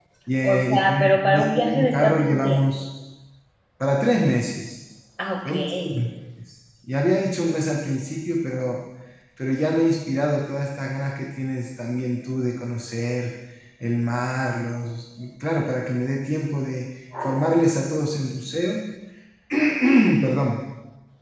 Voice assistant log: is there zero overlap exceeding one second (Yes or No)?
No